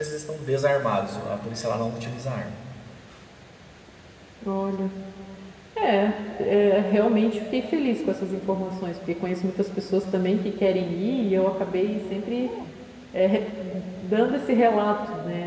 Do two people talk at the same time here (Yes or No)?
No